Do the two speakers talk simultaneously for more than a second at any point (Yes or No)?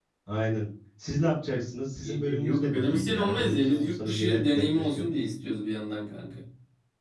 Yes